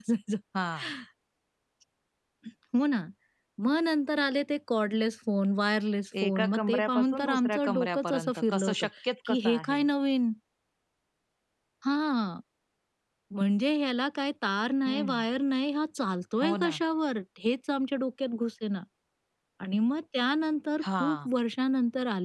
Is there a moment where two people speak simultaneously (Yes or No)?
Yes